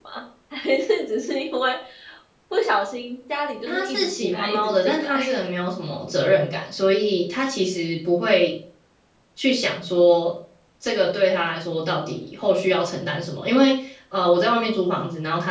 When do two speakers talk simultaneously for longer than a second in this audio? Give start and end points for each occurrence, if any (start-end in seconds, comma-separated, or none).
3.7-5.1